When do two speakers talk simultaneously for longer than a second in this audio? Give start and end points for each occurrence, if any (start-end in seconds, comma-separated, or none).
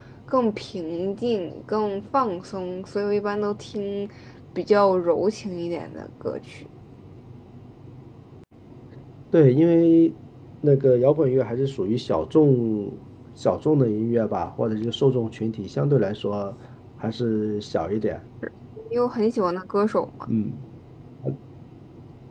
none